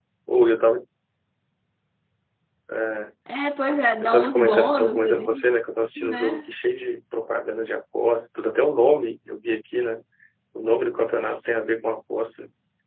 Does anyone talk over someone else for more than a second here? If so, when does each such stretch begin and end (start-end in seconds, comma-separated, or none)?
4.0-5.4